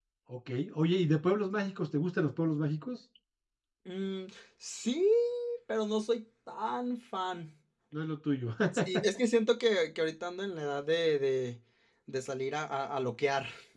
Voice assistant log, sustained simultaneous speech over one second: none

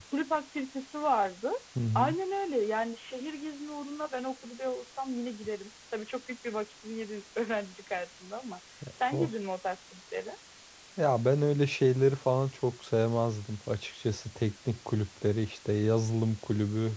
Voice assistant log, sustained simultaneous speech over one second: none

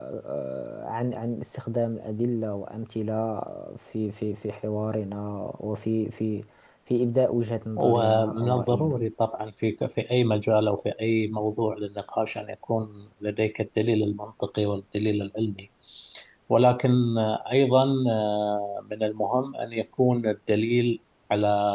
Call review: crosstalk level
present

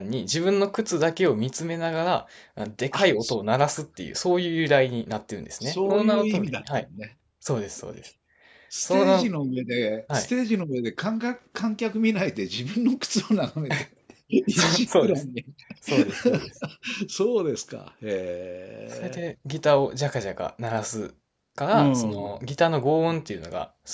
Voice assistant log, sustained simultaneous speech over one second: present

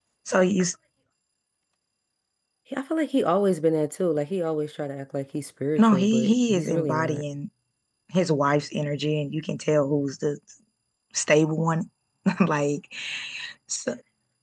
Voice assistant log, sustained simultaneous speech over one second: present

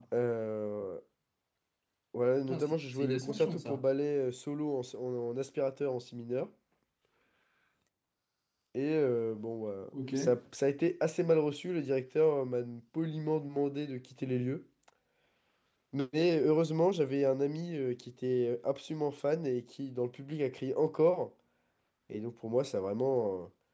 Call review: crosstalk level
present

